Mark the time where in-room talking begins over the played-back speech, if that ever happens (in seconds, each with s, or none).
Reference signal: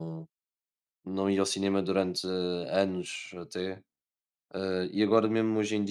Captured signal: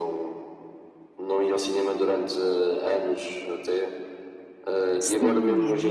5.0 s